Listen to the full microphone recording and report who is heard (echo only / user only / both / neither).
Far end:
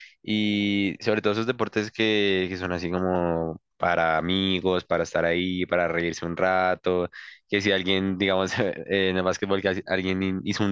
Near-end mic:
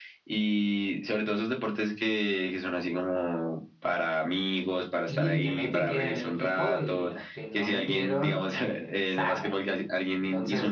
both